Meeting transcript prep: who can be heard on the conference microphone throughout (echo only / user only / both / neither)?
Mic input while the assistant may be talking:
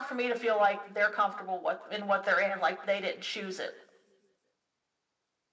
echo only